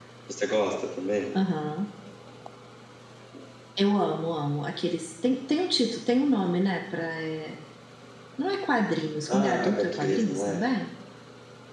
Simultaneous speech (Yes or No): Yes